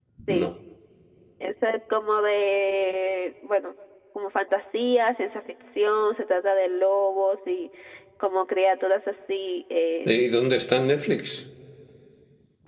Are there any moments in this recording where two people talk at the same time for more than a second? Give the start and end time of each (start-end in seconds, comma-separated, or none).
none